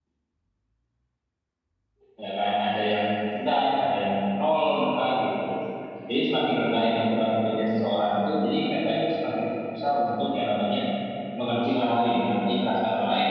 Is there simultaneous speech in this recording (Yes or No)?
No